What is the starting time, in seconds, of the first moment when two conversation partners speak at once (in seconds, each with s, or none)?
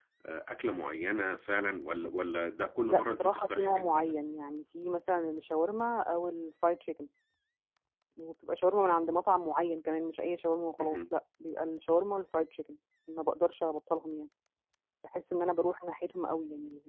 2.9 s